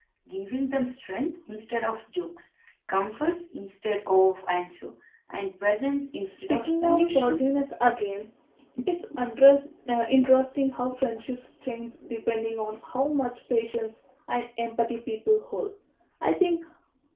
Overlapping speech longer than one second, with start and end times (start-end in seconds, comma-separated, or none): 6.3-7.6